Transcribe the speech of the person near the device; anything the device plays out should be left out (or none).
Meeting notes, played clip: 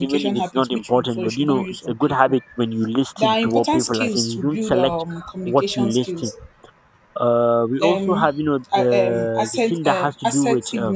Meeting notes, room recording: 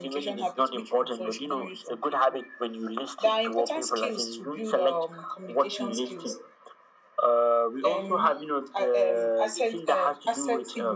none